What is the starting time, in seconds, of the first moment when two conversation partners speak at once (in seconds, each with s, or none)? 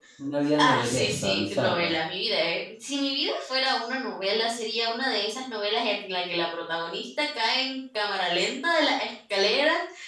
0.6 s